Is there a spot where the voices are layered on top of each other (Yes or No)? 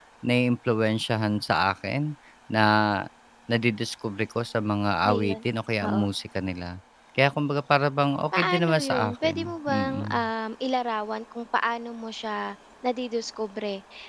Yes